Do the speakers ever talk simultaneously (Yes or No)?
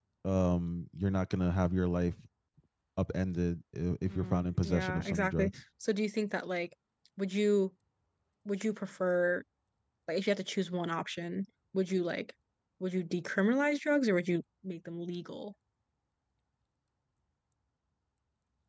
Yes